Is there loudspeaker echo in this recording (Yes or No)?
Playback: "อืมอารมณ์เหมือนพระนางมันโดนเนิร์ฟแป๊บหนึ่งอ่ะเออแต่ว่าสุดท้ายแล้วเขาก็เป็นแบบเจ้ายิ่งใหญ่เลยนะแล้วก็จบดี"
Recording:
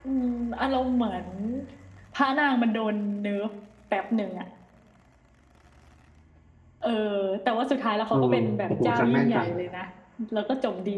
Yes